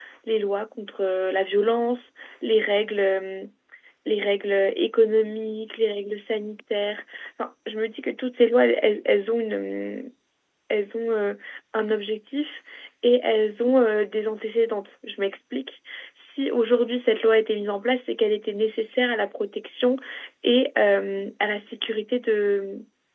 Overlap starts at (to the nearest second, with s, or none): none